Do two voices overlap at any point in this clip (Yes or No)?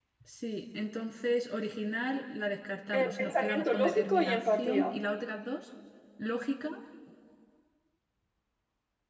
Yes